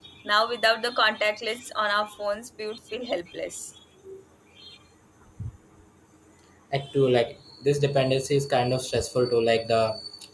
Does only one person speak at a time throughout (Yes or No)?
Yes